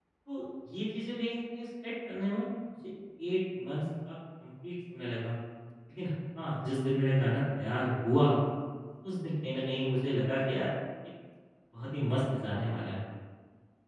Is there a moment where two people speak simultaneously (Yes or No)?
No